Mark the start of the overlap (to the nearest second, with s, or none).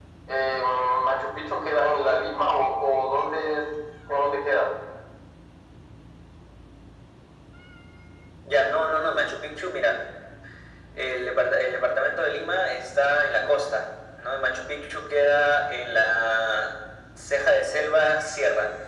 none